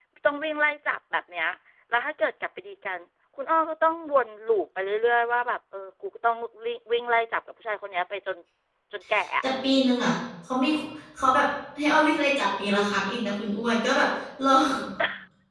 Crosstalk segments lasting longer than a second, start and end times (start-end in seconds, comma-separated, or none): none